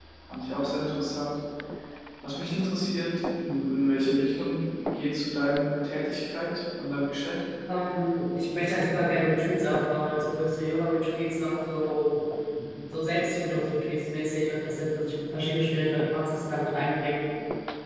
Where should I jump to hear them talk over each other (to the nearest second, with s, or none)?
none